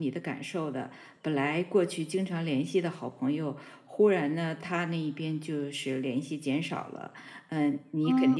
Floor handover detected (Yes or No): No